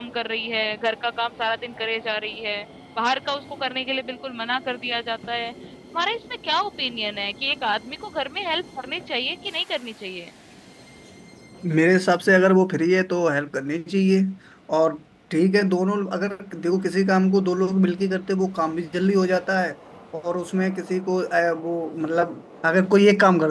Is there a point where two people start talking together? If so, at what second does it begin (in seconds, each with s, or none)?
none